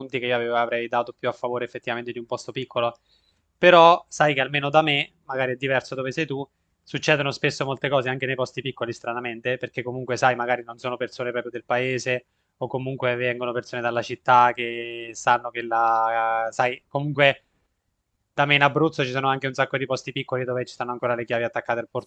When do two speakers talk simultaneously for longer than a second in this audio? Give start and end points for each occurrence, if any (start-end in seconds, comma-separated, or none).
none